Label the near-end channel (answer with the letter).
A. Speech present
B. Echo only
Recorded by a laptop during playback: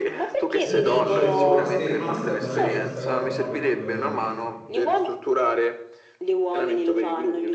A